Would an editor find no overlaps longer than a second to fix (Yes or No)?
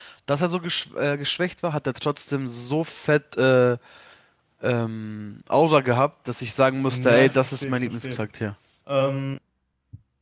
No